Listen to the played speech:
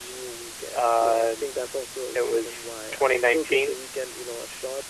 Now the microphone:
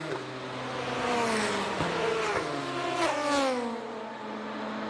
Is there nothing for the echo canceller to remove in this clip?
Yes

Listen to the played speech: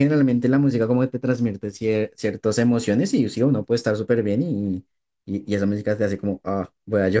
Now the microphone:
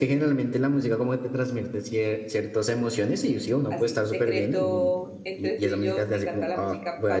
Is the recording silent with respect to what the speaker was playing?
No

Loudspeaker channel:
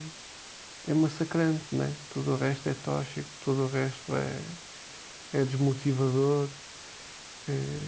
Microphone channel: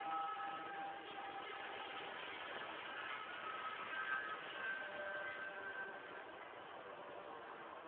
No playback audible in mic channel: Yes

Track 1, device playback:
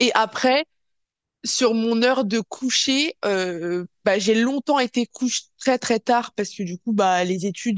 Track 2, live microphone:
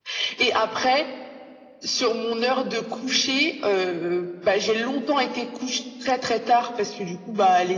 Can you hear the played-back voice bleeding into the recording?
Yes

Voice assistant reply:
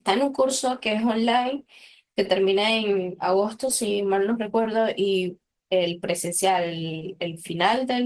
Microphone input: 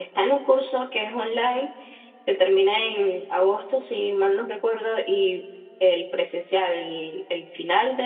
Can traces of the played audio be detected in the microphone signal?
Yes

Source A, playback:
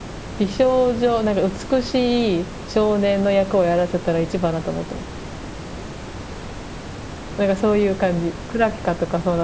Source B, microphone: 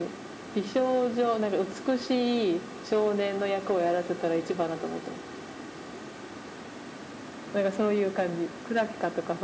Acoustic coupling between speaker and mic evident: Yes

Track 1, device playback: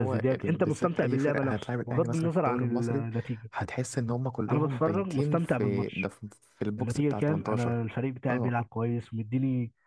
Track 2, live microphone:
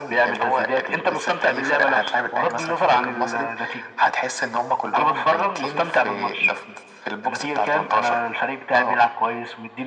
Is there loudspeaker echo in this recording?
Yes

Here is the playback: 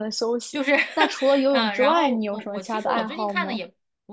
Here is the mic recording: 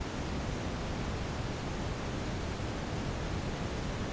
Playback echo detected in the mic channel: No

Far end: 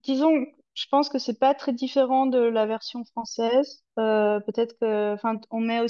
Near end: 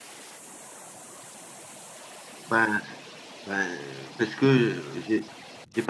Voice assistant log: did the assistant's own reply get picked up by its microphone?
No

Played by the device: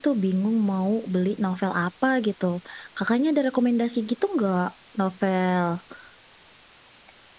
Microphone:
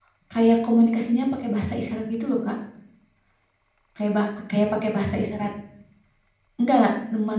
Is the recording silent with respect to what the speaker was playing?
Yes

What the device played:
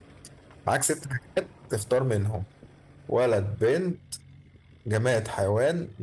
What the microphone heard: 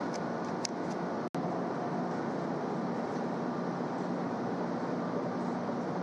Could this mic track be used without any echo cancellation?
Yes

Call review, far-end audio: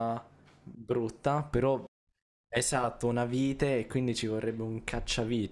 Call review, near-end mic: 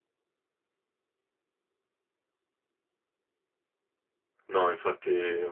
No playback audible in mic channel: Yes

